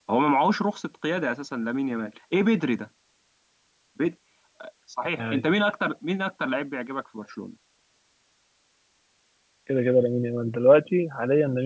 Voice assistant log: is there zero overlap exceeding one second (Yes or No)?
Yes